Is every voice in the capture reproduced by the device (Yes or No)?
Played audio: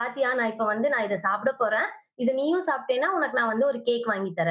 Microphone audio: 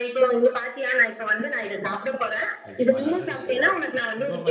No